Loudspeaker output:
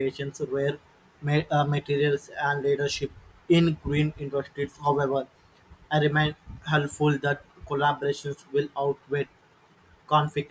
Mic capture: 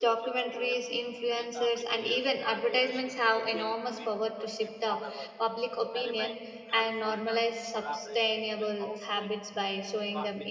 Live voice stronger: Yes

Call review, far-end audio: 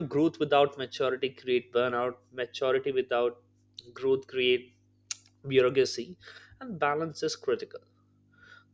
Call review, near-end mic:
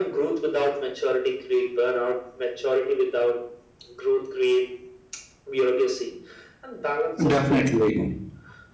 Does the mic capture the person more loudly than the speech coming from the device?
Yes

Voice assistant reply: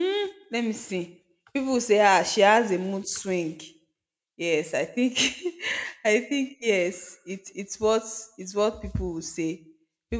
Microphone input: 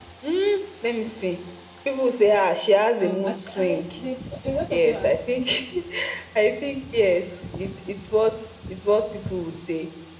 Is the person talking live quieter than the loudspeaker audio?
Yes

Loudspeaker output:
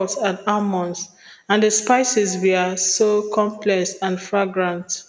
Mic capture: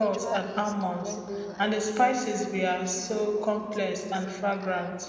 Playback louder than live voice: Yes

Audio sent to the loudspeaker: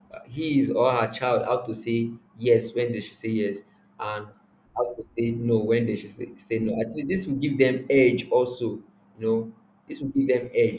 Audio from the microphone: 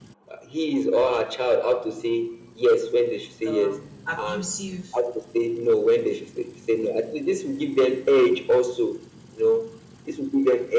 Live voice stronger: No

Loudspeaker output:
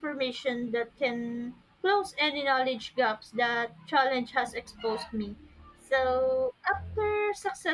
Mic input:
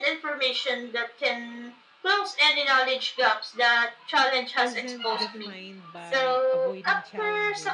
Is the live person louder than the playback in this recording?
No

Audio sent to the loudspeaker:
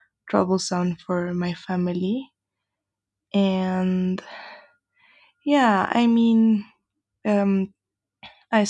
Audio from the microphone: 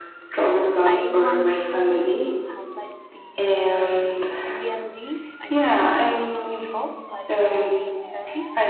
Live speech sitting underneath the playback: Yes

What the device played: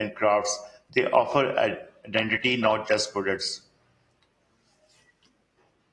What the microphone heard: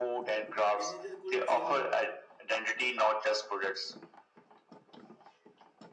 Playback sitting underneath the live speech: No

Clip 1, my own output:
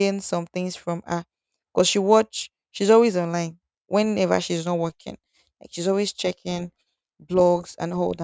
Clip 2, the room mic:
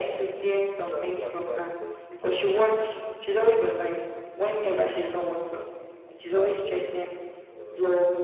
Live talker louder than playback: No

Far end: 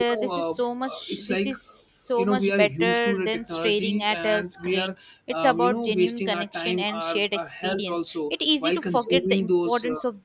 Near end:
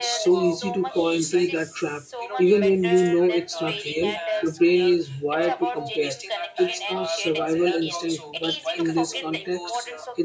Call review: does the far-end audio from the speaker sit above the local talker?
No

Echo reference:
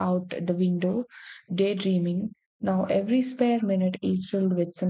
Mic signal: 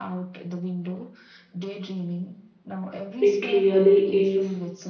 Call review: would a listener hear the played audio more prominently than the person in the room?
No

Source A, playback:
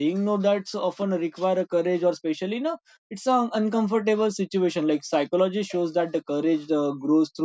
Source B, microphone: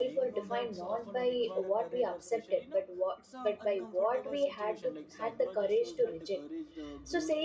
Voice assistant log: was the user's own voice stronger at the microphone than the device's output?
Yes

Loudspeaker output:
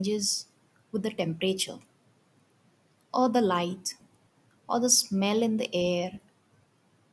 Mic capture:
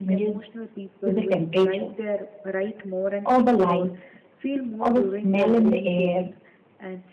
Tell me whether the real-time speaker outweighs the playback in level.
No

